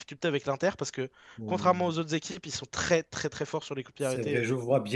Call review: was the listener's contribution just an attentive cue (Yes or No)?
No